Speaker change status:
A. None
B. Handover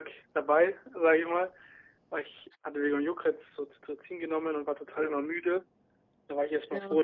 A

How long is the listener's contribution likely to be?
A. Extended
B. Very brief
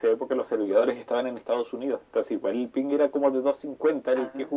A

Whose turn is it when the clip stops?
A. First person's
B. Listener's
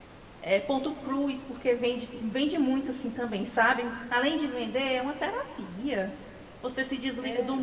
A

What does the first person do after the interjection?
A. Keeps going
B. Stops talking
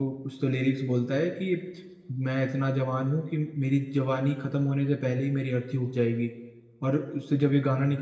A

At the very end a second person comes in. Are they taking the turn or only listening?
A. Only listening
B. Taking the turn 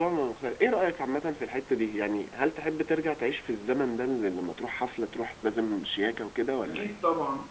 B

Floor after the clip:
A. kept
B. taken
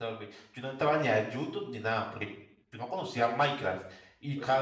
A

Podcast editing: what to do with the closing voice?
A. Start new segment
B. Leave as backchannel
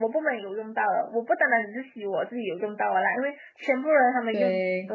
B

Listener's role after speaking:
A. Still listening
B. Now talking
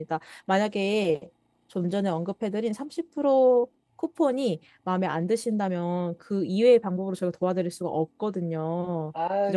B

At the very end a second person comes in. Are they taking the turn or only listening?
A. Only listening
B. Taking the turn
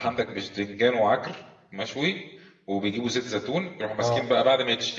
A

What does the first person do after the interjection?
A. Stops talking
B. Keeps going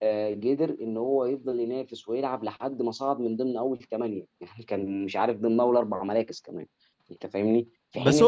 A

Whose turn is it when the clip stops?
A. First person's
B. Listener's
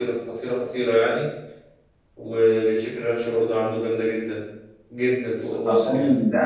B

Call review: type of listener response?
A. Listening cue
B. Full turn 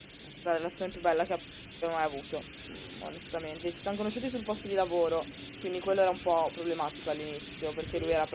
A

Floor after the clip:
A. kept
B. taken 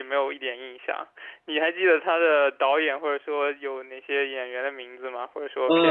B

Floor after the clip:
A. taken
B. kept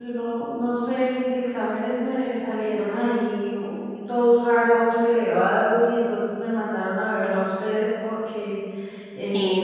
B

